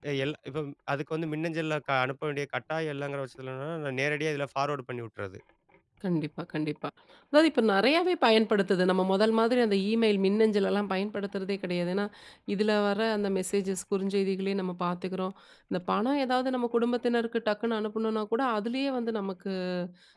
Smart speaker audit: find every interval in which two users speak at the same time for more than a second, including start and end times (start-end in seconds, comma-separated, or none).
none